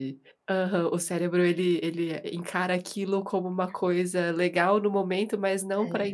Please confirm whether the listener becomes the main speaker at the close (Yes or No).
No